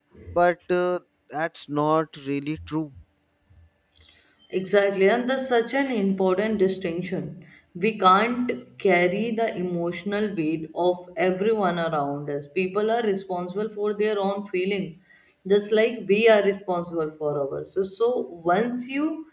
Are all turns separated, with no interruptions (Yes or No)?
Yes